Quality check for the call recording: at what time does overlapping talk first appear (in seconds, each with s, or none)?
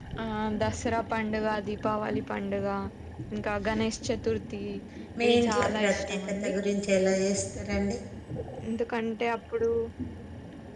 5.3 s